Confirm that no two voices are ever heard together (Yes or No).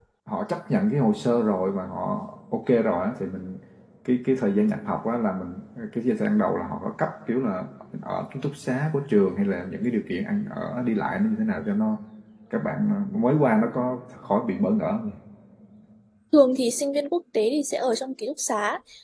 Yes